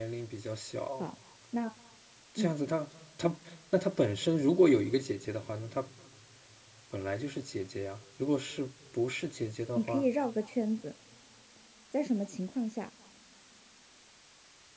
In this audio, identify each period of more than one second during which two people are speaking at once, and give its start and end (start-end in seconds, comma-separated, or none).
none